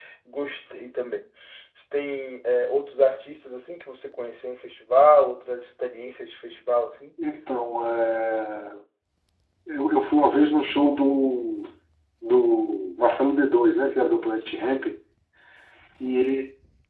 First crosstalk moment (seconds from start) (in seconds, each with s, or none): none